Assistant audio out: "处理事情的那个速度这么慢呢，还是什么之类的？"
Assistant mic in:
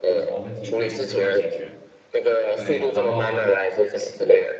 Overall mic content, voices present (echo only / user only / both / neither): both